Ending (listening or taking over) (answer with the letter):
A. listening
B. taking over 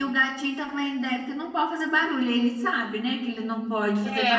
B